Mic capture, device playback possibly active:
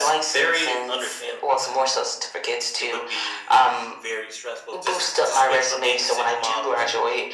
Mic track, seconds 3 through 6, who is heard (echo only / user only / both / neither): echo only